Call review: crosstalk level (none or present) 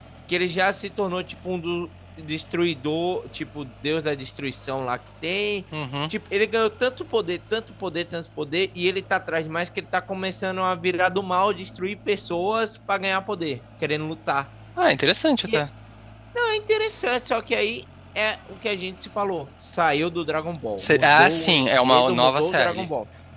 present